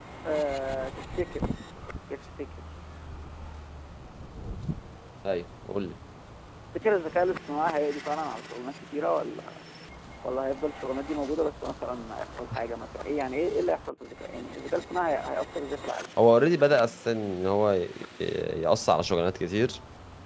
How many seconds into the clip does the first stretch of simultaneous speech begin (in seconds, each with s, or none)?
none